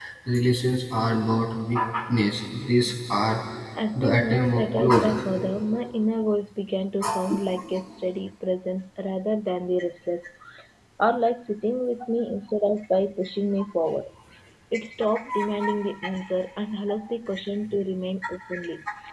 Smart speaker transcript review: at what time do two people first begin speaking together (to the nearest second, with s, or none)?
4 s